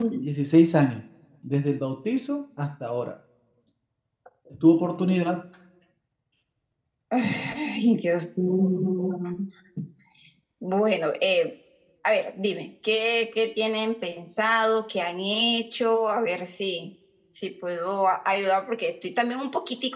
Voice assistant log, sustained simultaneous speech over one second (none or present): none